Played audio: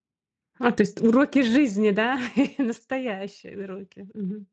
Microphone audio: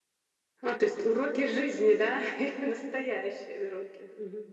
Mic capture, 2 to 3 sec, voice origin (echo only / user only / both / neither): echo only